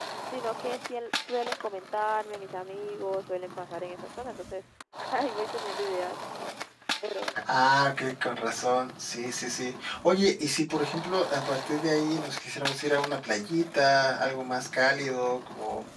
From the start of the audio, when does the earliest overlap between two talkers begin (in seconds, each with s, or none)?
none